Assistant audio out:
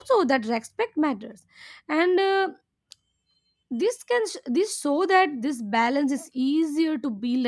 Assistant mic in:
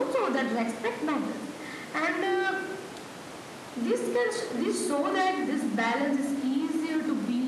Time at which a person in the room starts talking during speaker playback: none

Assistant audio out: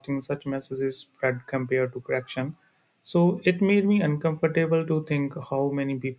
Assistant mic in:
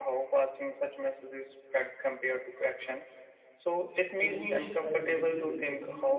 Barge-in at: 4.2 s

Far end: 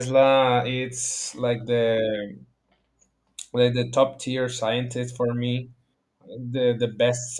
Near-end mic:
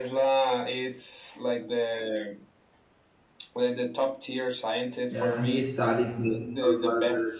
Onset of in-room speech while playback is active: 5.1 s

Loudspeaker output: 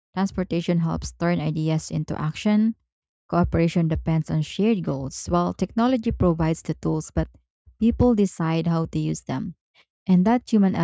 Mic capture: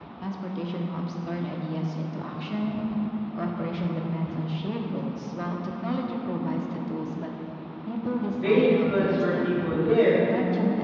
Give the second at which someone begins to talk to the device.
8.3 s

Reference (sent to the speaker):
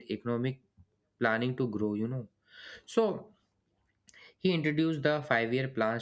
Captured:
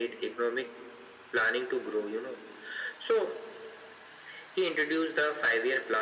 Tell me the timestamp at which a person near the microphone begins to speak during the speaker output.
none

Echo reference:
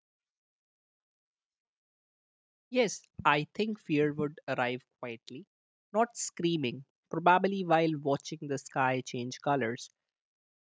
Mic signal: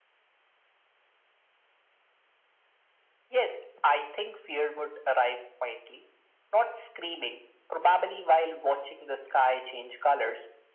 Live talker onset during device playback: none

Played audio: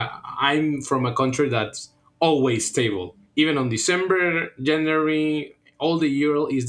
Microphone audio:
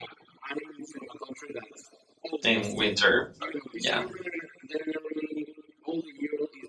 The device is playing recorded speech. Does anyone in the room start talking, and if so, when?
2.4 s

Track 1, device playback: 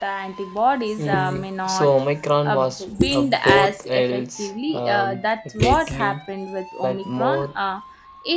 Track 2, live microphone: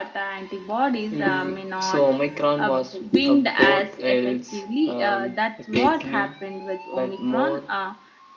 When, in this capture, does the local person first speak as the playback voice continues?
none

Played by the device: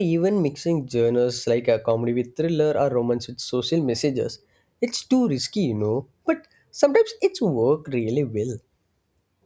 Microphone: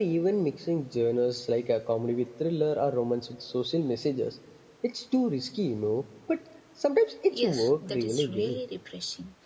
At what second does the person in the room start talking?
7.3 s

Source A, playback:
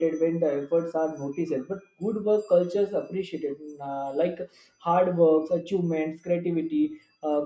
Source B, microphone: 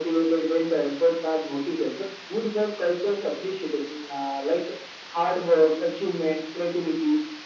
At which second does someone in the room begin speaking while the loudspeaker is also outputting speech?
none

